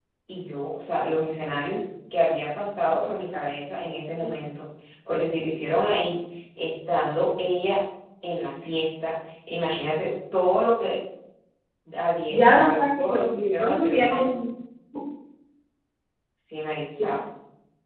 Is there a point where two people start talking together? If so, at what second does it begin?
12 s

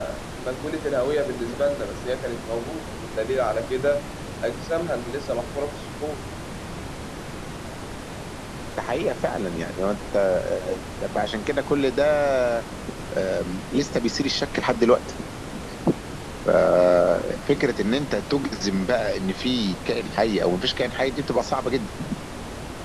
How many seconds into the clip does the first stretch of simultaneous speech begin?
none

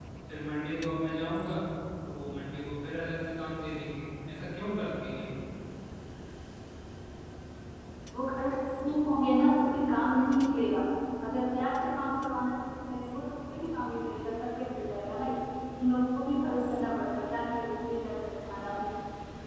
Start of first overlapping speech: none

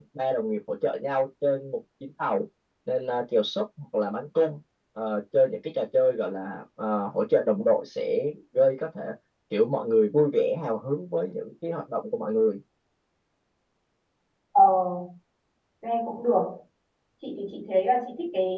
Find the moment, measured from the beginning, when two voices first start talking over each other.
none

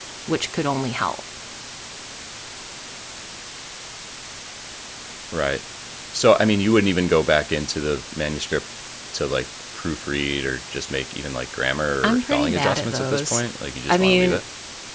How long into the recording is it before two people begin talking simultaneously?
12 s

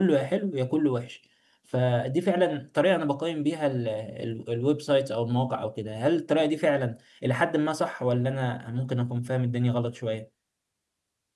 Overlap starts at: none

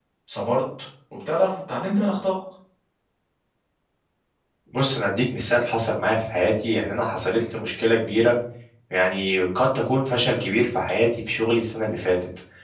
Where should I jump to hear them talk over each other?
none

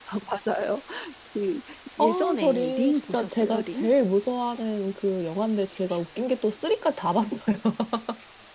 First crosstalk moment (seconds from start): 2 s

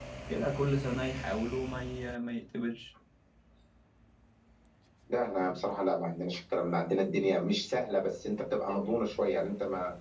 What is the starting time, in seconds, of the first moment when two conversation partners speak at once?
none

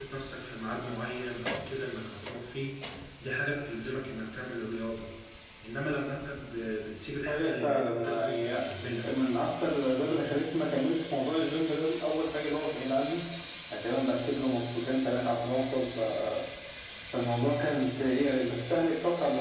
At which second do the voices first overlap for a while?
7 s

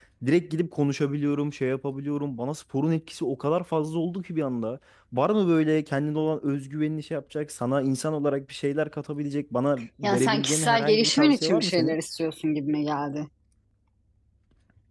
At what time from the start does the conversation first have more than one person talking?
10 s

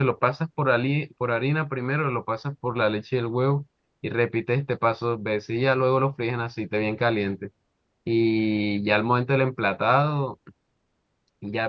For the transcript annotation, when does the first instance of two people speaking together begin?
none

